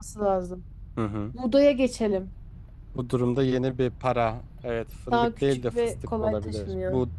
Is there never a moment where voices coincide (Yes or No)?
No